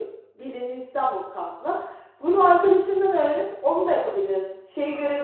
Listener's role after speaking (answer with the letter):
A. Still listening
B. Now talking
A